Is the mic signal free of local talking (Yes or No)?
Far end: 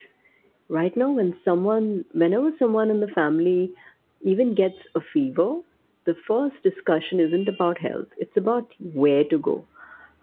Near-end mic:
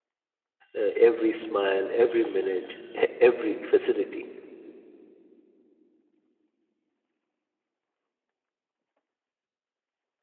No